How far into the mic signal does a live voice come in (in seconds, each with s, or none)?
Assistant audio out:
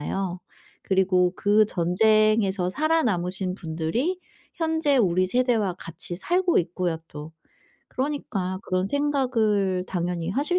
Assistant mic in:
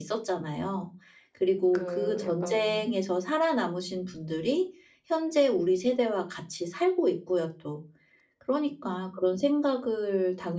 1.7 s